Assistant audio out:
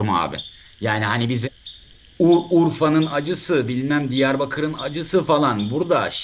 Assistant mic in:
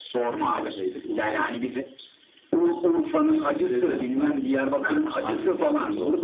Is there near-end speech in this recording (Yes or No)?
Yes